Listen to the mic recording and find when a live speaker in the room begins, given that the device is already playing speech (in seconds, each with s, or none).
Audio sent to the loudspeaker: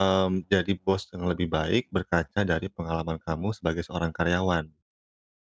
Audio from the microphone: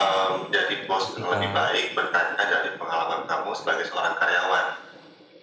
0.9 s